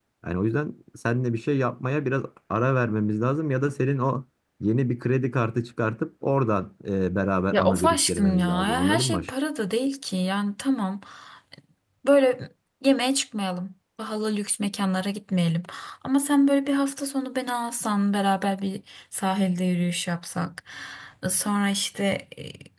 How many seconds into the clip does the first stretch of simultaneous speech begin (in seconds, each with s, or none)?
7.5 s